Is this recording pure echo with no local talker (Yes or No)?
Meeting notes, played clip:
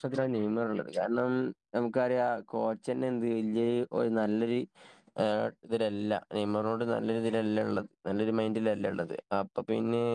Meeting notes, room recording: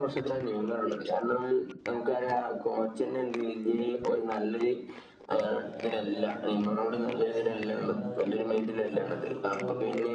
No